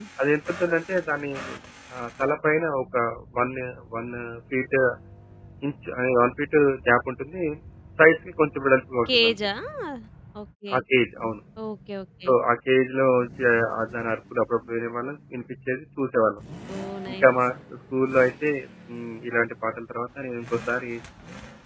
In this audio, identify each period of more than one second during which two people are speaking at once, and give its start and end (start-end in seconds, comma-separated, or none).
none